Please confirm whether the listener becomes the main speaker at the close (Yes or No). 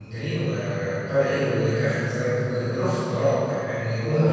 No